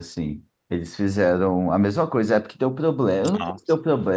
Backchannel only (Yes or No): Yes